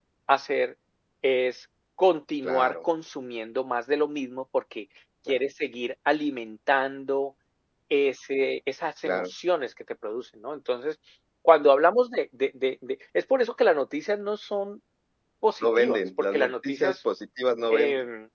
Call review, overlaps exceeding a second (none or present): present